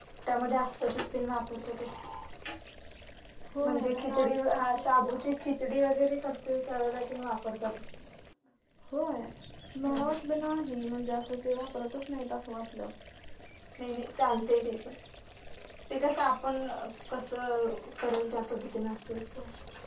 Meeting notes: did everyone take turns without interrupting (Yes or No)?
No